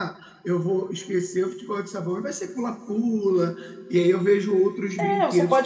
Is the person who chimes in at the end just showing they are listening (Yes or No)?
No